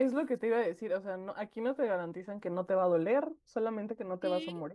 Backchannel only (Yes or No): No